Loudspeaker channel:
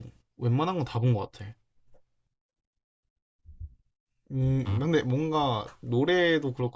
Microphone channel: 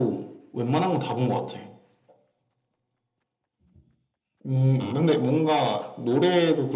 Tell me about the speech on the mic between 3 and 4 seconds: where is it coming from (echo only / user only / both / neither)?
neither